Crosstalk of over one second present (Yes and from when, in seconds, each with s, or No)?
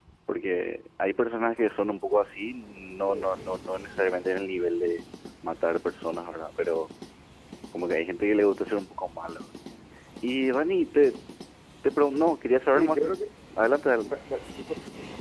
No